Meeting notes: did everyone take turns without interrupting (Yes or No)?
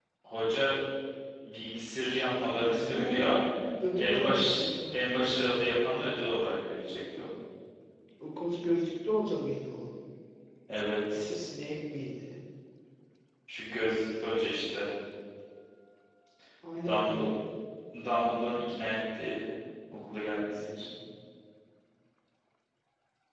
No